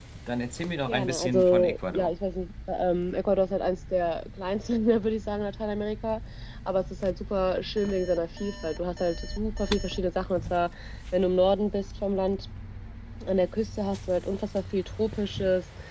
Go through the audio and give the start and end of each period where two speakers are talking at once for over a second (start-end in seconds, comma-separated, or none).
0.9-2.1